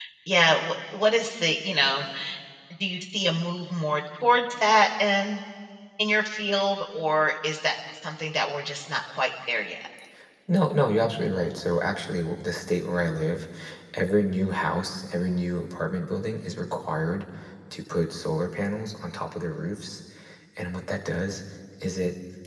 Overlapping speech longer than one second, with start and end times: none

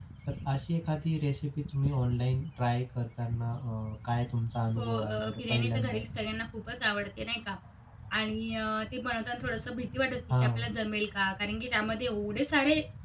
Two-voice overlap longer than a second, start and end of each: 4.8-6.0

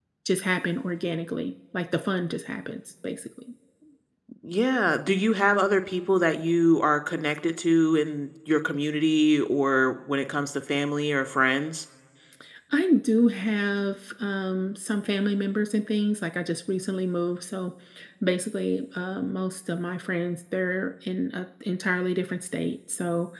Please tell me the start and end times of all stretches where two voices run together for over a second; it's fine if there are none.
none

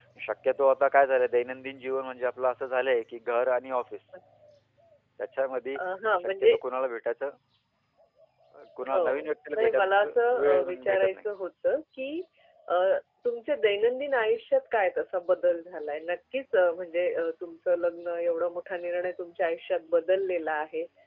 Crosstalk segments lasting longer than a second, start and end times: 8.9-11.2

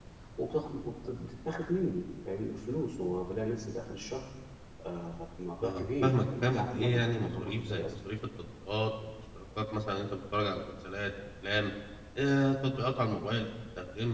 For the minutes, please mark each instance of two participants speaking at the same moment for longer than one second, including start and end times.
5.6-7.9

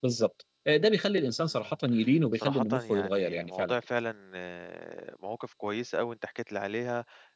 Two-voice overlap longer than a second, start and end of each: 2.4-3.8

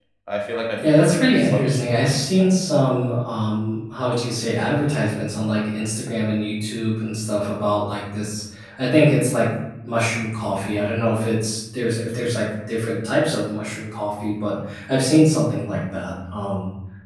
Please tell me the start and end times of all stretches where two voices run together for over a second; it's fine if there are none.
0.8-2.2

